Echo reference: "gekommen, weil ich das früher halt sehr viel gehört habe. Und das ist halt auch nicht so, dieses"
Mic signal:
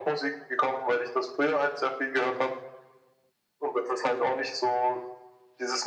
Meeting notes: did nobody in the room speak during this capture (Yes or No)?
Yes